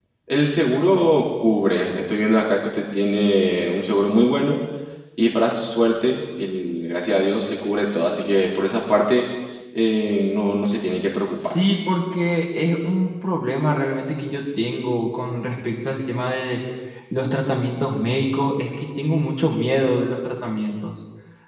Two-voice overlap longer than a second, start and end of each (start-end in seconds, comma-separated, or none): none